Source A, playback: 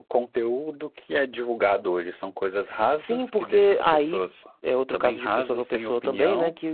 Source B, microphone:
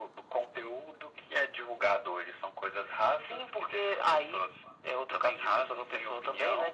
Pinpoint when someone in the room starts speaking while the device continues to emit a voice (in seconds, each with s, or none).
none